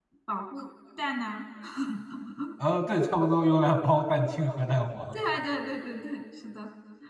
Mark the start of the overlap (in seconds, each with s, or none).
none